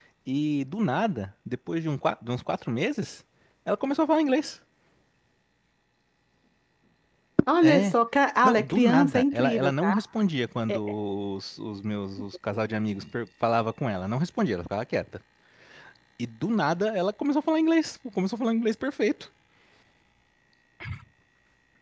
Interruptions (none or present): present